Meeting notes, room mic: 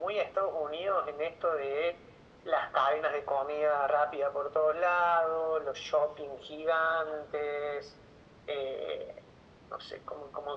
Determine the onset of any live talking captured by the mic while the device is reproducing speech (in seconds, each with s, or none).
none